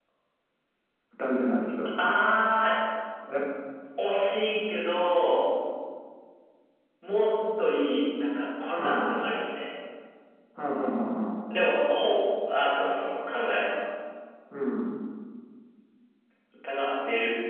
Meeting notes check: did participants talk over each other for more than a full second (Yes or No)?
No